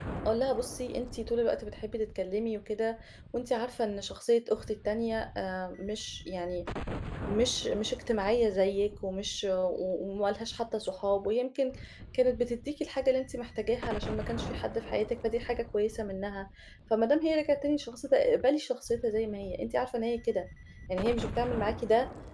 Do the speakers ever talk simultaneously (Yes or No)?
No